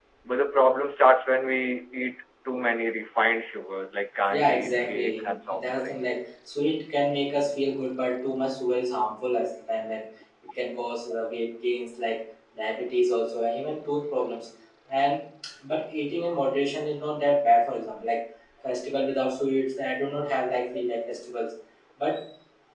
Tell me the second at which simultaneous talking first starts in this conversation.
4.3 s

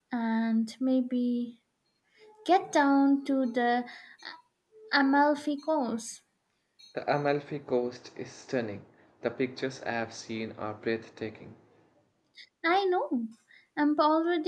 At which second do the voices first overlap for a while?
none

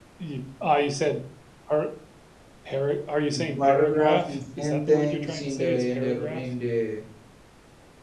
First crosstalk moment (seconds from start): 3.3 s

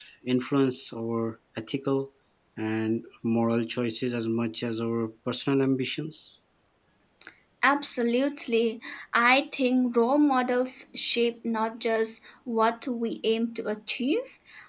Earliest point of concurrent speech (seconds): none

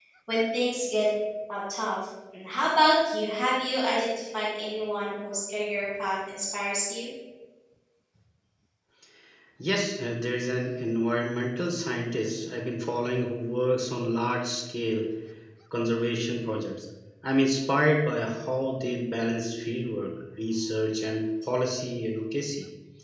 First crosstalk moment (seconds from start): none

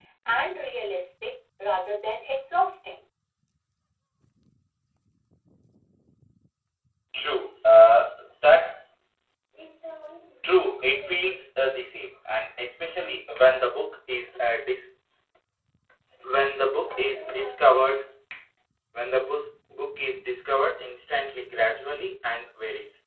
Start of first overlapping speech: none

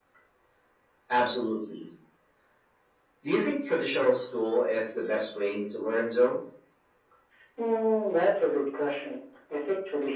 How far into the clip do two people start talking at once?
none

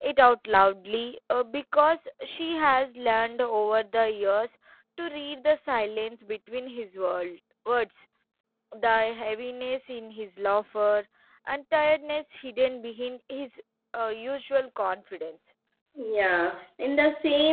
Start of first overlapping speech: none

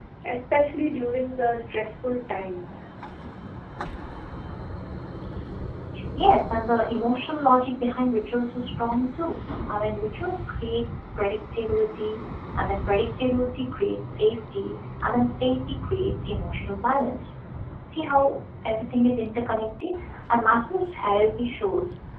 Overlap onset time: none

